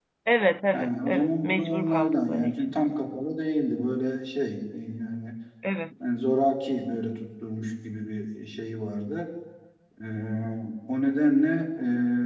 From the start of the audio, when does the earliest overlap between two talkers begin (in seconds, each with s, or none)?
0.7 s